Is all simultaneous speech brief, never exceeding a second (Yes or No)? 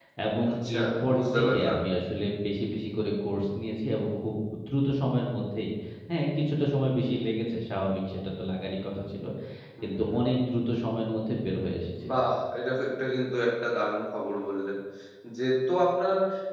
No